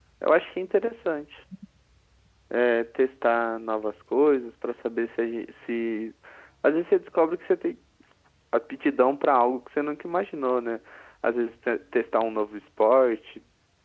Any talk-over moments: No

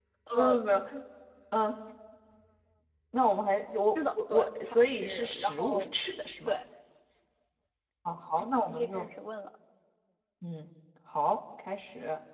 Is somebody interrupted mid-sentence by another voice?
Yes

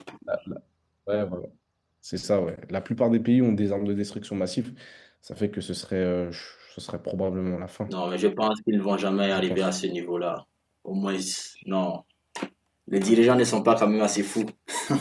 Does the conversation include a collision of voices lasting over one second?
No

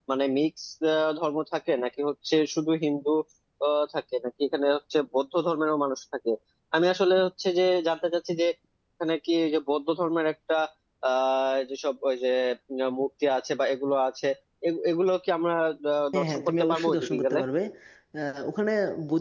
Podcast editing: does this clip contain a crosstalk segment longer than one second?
Yes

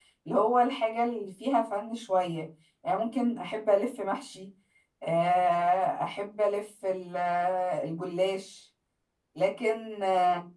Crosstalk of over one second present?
No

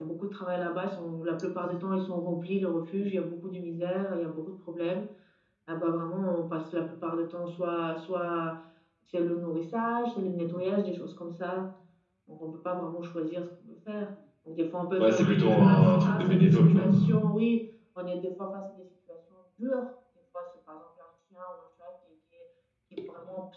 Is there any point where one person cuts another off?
Yes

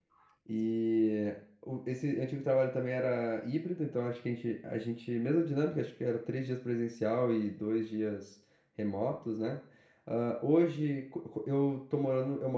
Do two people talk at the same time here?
No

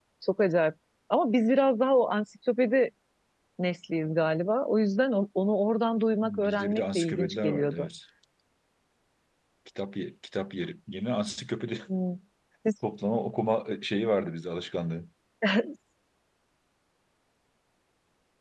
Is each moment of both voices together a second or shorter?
No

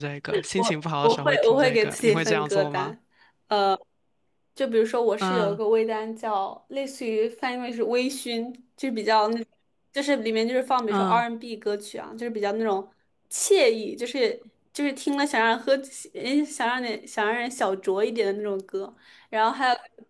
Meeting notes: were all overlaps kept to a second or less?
No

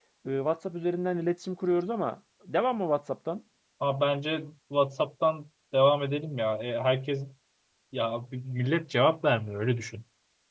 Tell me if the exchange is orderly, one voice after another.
Yes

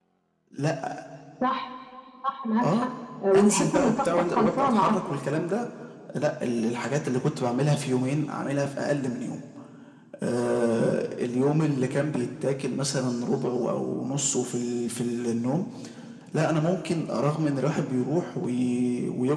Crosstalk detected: Yes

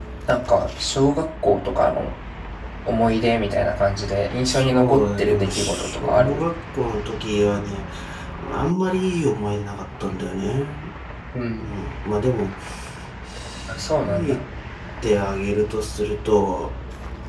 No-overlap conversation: No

